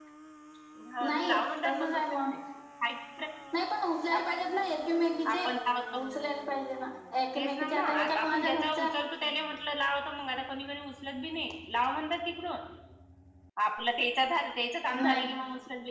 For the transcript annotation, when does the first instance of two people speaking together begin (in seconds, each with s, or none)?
1.1 s